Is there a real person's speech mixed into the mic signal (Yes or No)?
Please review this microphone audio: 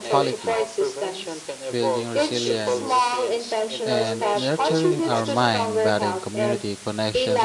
Yes